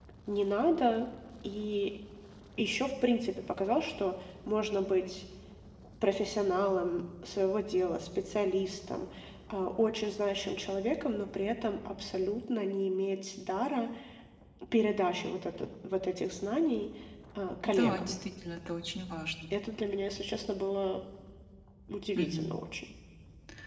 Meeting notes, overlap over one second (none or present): none